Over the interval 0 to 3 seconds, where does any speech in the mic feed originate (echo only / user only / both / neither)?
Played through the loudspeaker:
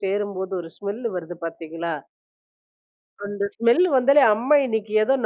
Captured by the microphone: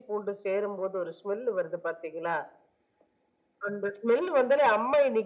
echo only